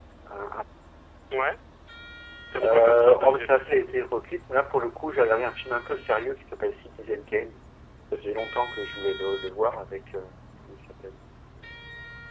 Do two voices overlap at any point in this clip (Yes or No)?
Yes